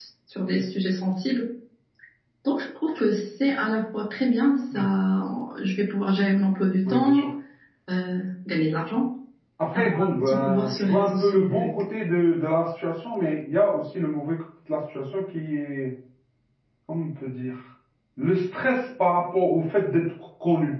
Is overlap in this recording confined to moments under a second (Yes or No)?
No